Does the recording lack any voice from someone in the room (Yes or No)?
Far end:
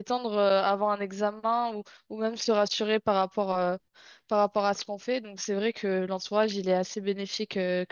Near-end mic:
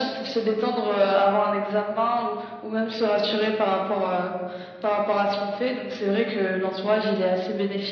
Yes